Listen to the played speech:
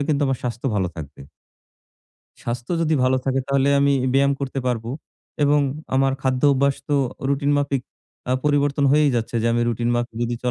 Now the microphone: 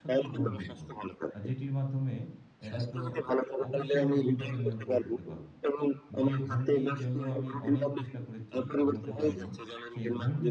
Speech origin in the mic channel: both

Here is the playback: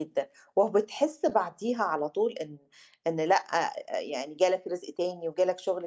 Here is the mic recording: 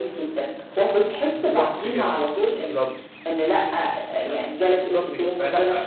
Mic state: both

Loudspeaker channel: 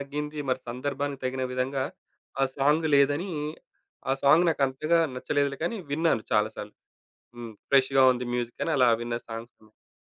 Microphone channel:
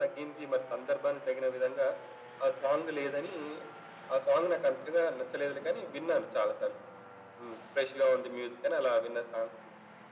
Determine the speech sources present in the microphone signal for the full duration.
echo only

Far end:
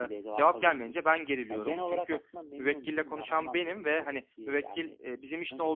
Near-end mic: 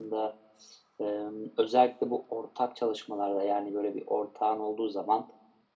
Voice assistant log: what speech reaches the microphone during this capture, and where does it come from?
user only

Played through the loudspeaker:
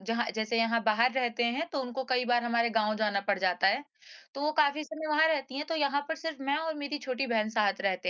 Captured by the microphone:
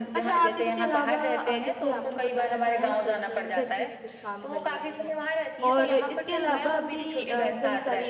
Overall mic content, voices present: both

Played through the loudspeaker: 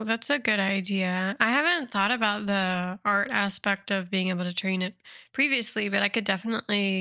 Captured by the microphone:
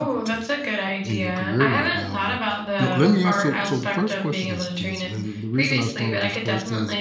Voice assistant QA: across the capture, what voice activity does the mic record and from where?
both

